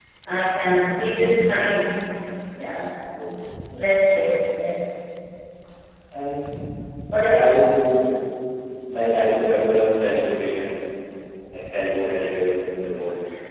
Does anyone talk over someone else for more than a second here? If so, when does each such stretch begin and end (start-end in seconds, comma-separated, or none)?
none